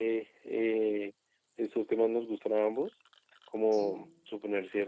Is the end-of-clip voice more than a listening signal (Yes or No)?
No